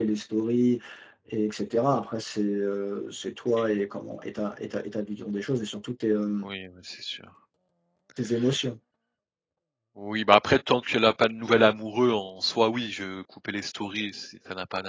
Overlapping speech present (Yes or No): No